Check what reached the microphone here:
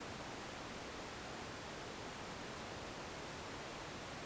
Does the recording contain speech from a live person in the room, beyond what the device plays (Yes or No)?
No